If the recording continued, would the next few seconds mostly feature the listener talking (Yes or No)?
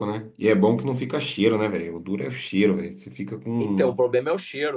Yes